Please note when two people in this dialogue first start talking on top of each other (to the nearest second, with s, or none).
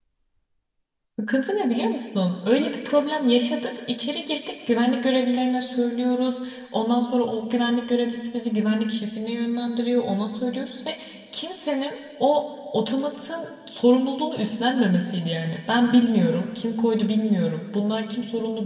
none